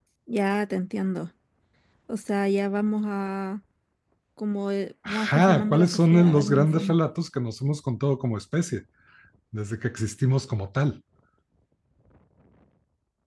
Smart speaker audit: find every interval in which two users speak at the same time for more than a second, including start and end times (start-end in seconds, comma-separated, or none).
5.1-7.0